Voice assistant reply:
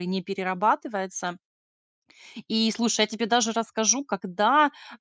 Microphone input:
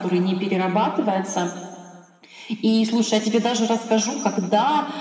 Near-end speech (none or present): none